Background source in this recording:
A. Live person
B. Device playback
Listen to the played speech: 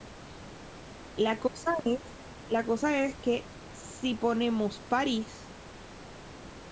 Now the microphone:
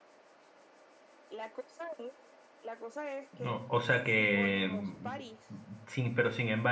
B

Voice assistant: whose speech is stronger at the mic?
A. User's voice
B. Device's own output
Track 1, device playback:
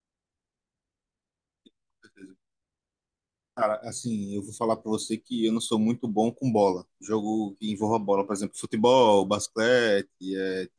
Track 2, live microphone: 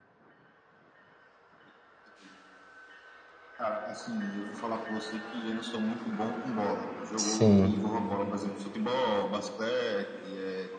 A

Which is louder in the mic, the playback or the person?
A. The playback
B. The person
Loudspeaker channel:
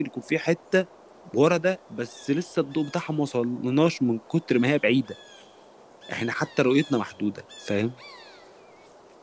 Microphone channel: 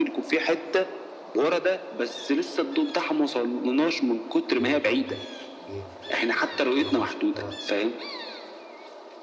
A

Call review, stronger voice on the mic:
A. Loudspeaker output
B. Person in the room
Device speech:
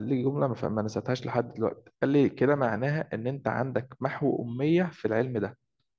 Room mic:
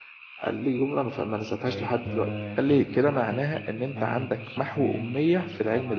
A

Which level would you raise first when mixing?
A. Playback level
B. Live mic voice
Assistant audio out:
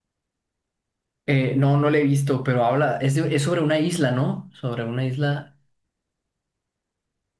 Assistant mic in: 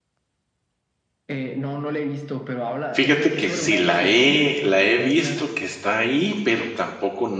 A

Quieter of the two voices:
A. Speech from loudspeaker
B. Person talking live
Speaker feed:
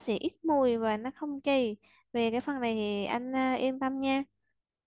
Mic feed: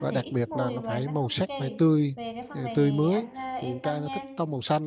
A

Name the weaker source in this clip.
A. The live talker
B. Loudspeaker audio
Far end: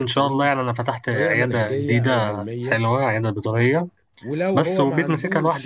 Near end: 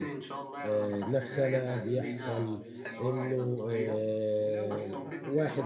B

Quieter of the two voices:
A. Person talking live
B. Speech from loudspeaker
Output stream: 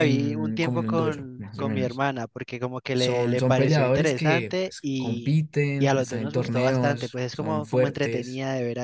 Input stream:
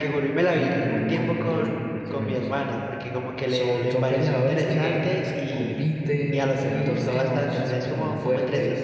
A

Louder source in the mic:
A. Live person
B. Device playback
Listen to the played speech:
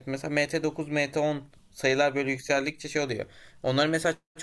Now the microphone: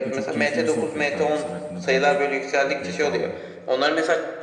B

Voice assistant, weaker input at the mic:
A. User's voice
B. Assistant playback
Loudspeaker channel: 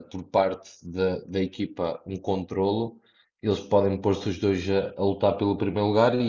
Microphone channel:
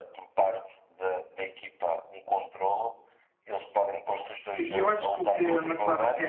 B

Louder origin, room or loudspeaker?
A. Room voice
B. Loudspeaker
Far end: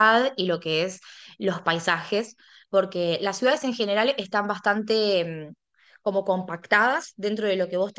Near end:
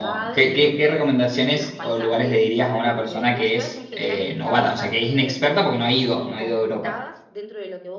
A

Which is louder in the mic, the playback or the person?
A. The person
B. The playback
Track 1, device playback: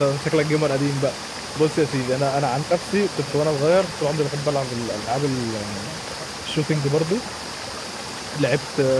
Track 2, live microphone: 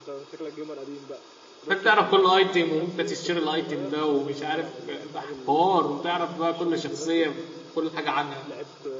A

